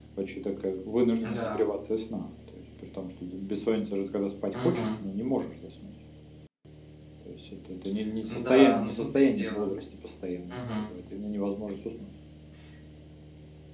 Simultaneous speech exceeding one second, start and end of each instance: 8.3-9.7

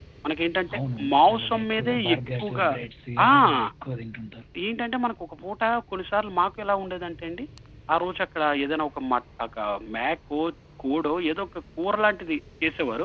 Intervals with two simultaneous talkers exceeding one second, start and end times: 1.1-2.7

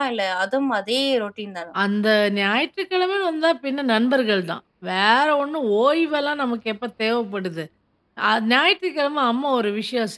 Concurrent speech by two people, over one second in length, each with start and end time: none

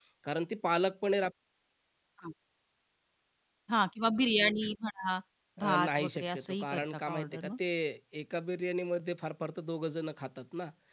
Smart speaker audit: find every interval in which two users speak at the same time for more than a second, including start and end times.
5.6-7.5

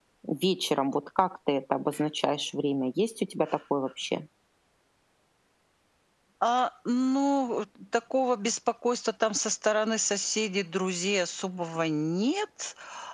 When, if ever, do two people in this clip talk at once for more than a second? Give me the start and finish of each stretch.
none

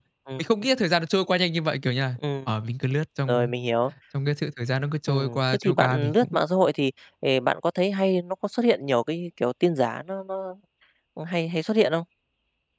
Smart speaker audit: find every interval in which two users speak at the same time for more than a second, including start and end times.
5.1-6.4

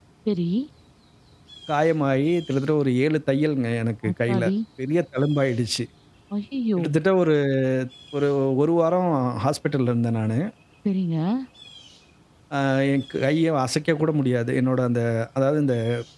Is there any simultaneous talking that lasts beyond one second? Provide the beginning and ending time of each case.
none

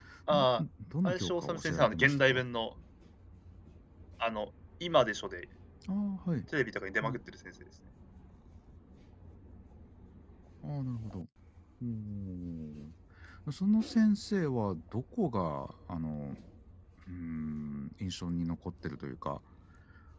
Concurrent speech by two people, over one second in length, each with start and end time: 1.1-2.4

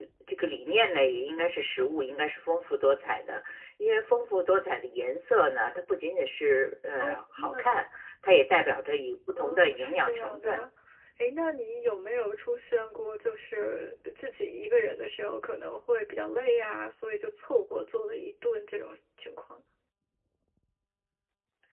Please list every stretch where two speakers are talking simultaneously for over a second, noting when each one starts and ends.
9.4-10.6

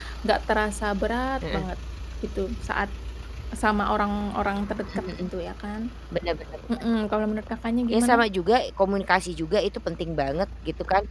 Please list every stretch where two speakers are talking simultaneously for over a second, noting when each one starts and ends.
none

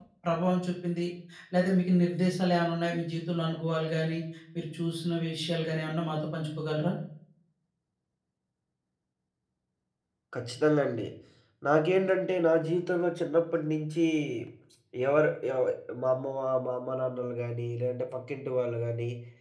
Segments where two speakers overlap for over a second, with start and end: none

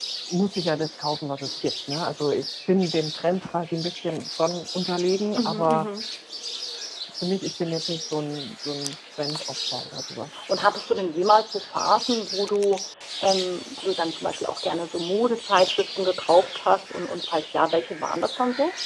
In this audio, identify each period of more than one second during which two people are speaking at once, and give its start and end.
none

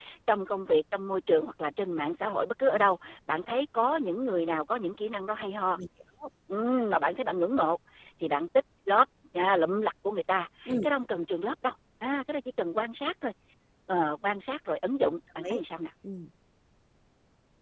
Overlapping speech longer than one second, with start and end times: none

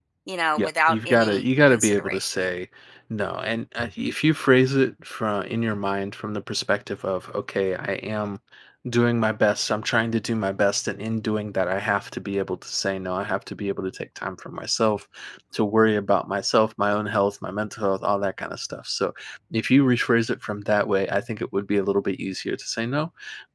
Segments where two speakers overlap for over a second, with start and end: 0.6-2.4

